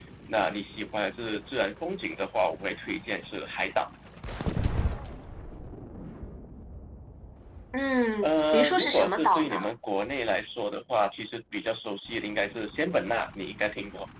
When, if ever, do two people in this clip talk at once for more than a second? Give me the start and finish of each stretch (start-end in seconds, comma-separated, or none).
8.2-9.7